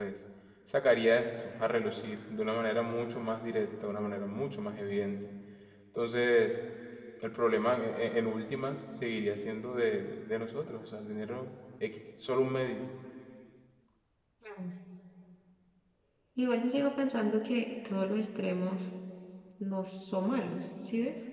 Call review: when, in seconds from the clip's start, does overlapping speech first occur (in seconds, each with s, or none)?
none